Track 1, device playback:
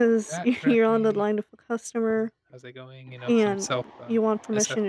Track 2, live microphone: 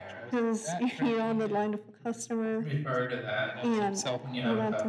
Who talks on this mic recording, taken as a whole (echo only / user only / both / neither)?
both